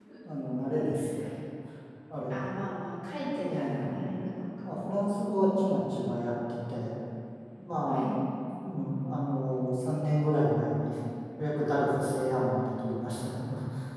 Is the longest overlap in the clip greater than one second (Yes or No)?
No